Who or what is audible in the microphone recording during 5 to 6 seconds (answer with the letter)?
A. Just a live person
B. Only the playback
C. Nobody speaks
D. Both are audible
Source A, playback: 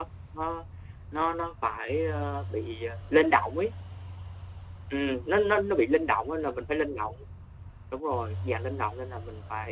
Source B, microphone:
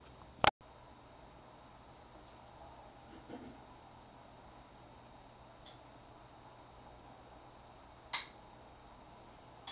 C